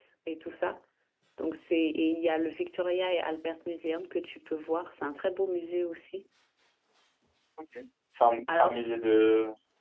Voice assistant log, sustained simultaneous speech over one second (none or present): none